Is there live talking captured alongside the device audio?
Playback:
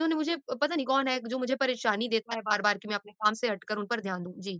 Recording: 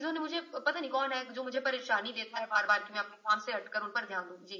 No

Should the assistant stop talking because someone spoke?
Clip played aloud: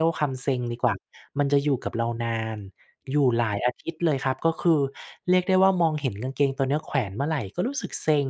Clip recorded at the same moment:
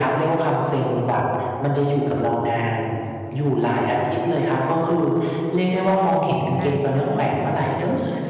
Yes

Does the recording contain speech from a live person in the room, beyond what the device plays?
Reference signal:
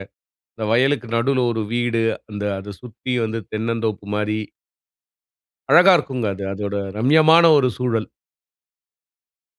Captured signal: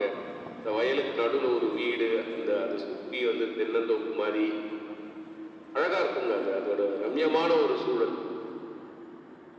No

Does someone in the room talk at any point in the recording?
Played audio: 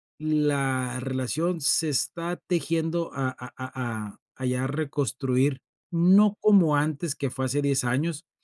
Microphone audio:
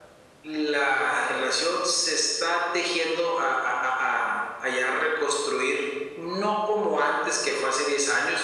No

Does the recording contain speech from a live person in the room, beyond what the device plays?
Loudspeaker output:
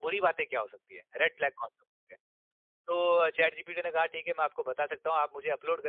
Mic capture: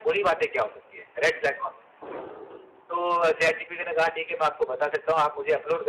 No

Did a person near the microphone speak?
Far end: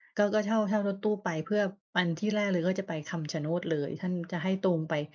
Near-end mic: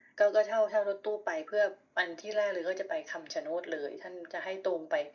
No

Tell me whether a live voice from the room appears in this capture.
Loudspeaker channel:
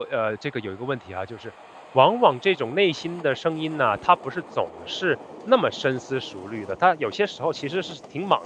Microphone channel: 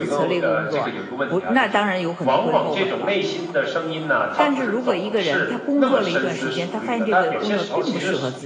Yes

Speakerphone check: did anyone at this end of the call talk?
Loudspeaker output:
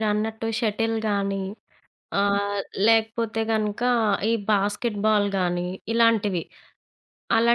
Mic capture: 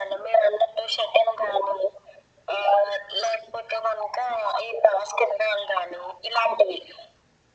No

